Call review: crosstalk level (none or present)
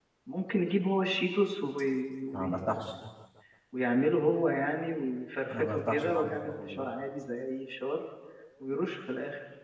present